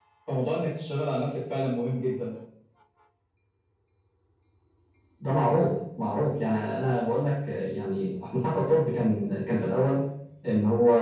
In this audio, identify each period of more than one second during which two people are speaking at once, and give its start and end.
none

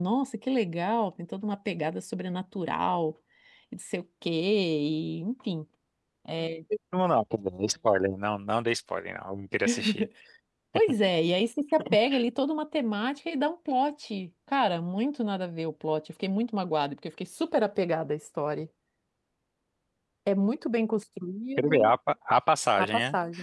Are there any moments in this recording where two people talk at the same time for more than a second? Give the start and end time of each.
none

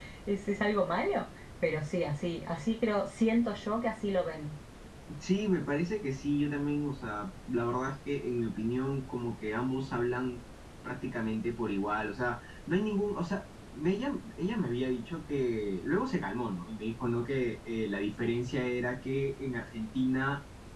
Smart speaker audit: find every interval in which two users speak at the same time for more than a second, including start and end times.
none

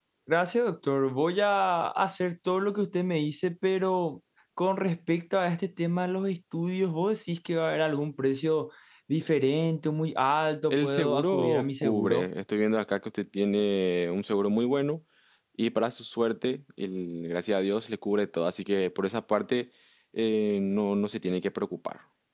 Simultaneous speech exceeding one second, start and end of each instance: 10.7-12.3

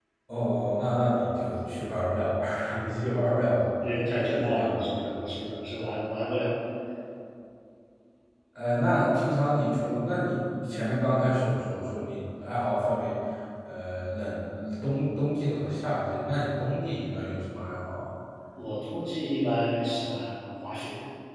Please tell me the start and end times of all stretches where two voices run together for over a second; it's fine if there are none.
3.8-5.5

